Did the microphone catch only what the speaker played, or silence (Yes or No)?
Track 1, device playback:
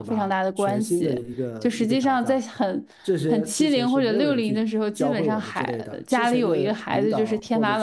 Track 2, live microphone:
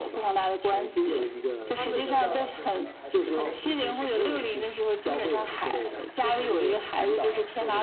No